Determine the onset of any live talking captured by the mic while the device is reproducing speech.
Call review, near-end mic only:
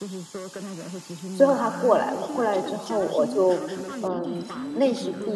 1.3 s

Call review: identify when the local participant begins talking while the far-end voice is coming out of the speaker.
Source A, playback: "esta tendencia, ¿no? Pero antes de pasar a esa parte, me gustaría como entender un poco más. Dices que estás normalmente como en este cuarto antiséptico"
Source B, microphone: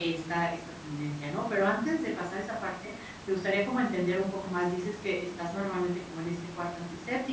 none

